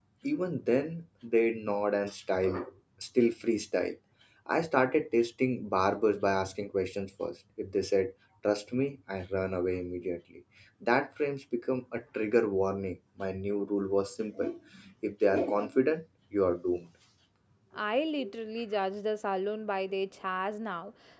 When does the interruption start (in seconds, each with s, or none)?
none